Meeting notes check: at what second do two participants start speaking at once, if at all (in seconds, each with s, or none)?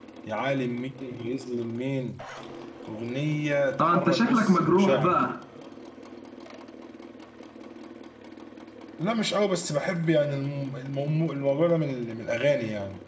3.8 s